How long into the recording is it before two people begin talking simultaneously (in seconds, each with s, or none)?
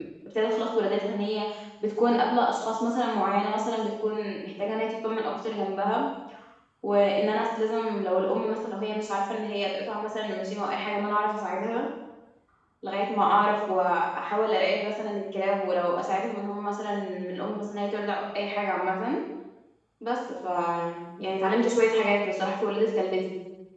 none